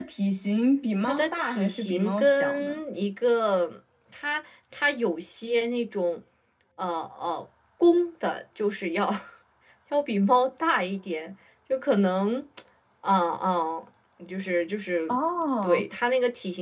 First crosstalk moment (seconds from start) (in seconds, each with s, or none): 1.0 s